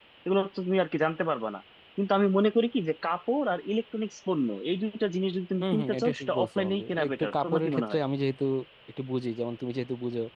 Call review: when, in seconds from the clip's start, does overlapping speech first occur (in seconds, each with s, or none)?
5.6 s